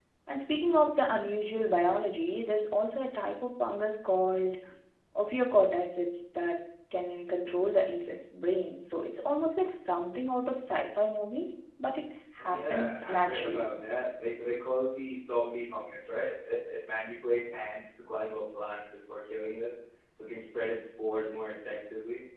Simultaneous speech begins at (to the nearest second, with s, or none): 12 s